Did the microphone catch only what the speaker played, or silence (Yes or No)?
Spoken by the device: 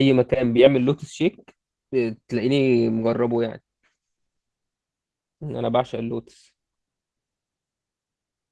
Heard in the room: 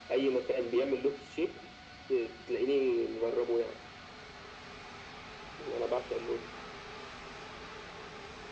Yes